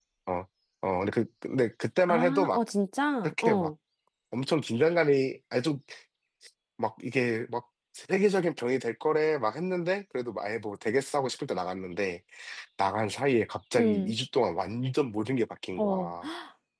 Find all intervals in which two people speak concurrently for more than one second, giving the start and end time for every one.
none

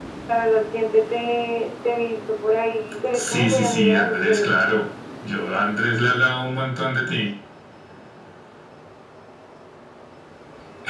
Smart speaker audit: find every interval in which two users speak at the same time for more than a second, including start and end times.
3.1-4.8

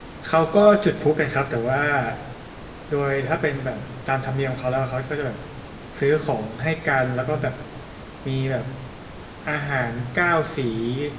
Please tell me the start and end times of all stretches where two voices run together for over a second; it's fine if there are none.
none

